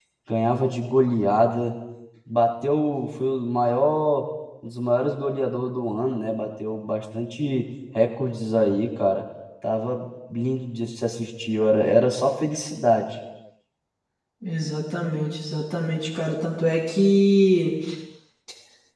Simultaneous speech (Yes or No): No